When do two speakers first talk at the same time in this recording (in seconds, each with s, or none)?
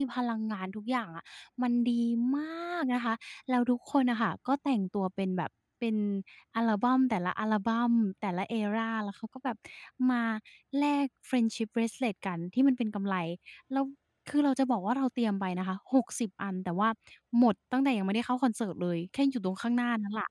none